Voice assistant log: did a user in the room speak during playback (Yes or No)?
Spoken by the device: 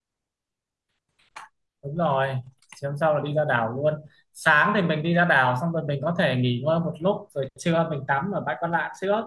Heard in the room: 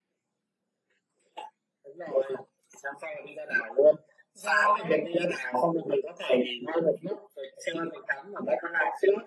Yes